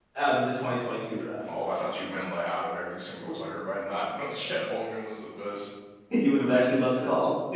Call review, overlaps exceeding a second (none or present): none